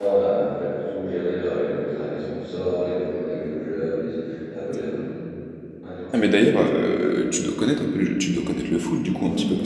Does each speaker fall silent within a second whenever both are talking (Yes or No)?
Yes